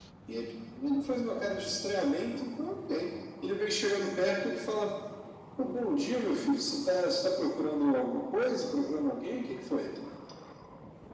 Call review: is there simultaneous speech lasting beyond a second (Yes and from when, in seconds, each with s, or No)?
No